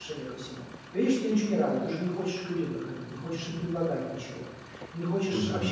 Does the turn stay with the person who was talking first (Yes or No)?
Yes